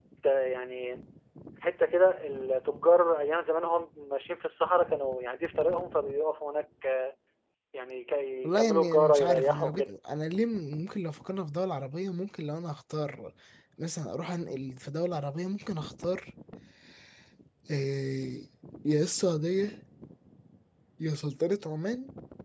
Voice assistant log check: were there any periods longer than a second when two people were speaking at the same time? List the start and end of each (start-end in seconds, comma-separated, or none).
8.4-9.9